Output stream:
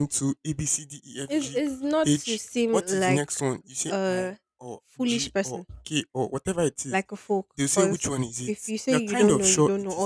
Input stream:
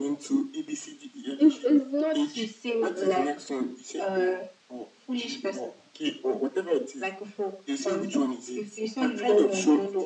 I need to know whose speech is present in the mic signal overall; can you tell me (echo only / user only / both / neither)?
echo only